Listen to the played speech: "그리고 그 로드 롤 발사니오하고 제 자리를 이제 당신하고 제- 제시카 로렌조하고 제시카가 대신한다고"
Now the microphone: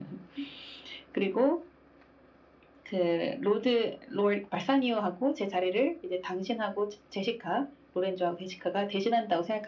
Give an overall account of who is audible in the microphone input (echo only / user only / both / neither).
echo only